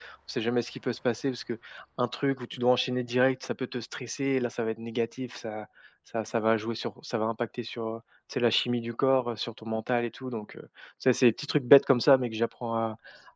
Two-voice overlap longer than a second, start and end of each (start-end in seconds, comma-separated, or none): none